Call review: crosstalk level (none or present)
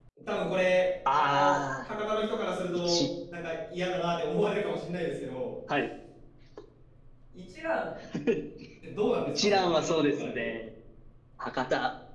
present